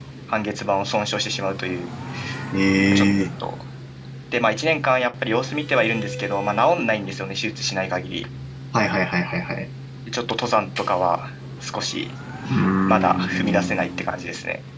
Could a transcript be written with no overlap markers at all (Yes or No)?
No